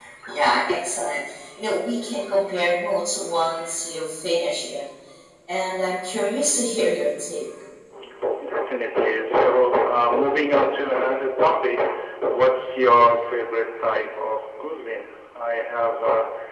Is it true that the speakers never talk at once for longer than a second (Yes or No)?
Yes